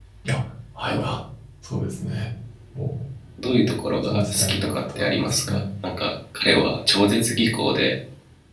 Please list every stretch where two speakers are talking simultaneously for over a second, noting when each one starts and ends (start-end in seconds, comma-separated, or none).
4.1-5.6